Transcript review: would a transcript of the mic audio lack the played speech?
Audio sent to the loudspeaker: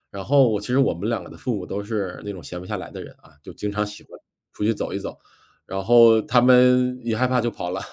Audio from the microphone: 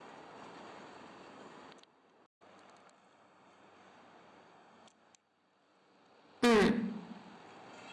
Yes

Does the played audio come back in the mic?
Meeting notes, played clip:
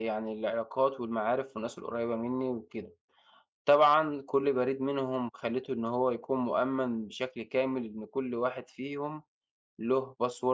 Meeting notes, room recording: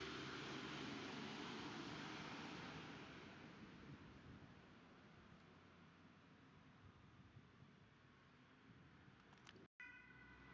No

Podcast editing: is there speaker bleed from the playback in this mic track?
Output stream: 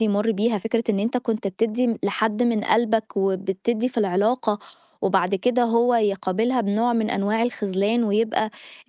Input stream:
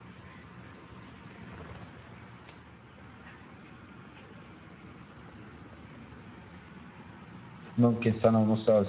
No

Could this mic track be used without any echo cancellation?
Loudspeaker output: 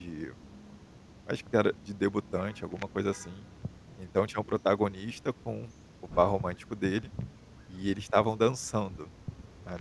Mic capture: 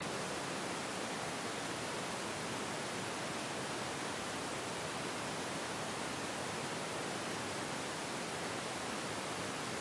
Yes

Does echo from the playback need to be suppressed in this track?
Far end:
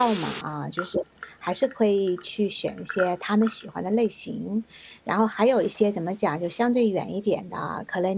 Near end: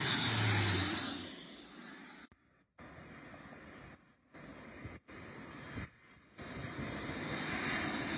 No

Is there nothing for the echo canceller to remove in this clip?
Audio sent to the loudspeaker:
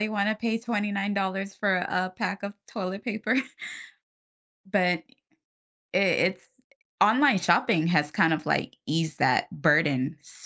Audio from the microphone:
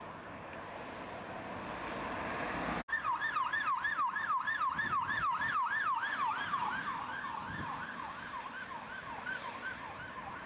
Yes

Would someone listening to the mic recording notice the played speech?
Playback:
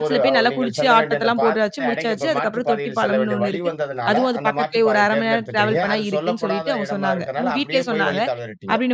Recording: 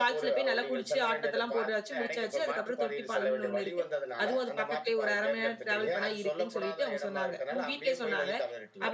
Yes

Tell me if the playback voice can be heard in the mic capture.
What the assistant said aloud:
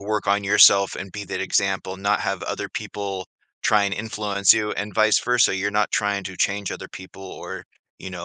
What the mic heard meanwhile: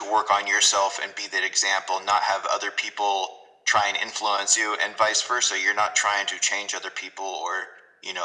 Yes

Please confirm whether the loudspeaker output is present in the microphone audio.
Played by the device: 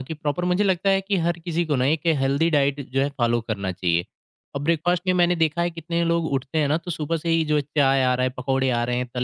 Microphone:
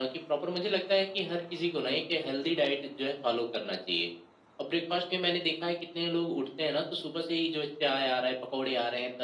Yes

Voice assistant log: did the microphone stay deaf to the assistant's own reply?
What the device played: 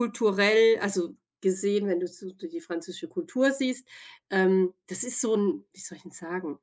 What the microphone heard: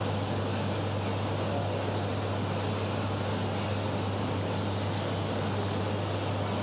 Yes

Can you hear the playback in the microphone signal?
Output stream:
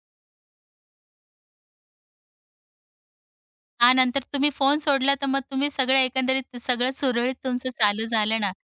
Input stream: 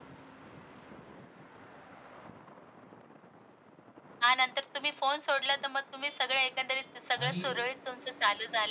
Yes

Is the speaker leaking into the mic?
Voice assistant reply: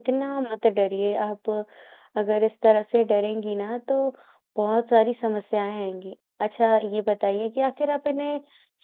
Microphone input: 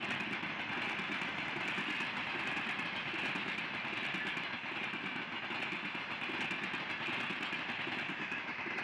No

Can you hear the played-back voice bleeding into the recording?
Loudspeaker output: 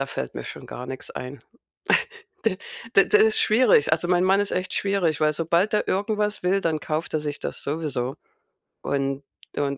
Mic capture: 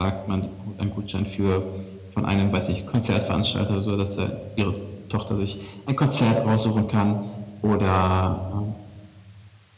No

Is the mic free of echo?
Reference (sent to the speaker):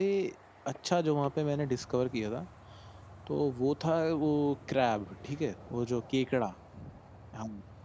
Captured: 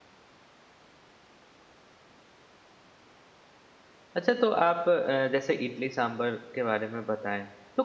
Yes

